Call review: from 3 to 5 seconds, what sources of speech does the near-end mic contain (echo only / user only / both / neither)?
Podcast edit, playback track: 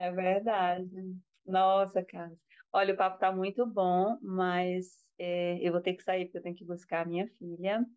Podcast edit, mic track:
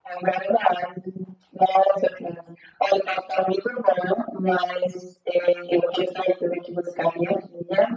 echo only